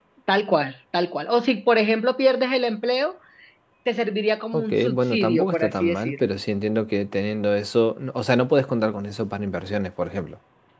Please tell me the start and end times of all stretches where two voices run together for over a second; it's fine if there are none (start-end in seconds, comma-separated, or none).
4.5-6.3